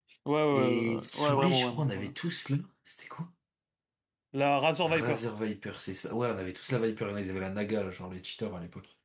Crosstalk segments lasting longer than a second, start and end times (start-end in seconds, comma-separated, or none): 0.5-2.1